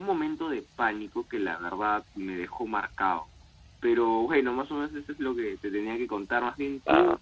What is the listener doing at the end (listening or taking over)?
listening